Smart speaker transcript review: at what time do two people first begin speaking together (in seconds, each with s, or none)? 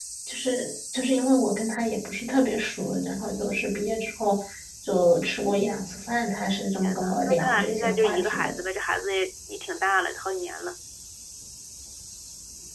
6.8 s